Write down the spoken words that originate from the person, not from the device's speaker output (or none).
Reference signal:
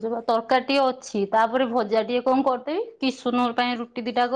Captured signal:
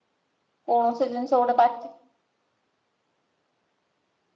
କୌଣସି ଜିନିଷ ଗୋଟେ ପାଟି